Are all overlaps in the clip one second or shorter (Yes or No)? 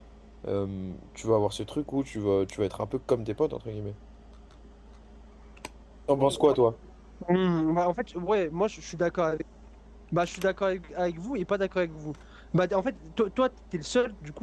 Yes